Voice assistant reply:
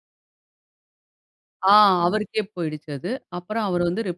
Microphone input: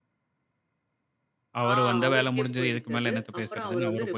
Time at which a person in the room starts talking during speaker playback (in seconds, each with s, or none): 1.6 s